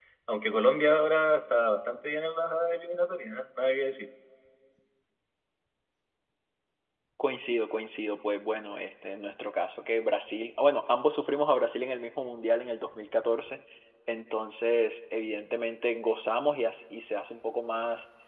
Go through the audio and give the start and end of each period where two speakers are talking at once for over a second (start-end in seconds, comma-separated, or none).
none